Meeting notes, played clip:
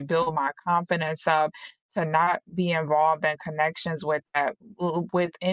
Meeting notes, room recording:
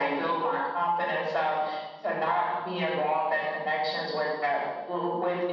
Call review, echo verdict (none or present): present